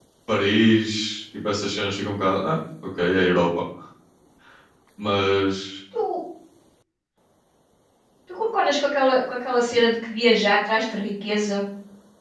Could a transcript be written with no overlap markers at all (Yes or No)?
Yes